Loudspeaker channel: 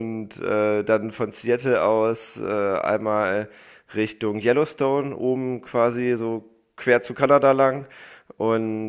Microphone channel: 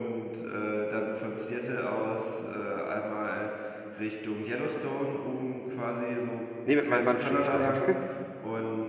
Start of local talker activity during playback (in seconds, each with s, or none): 6.6 s